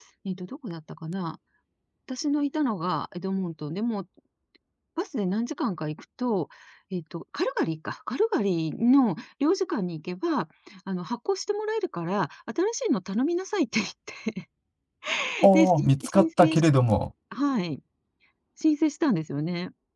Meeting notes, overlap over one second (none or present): present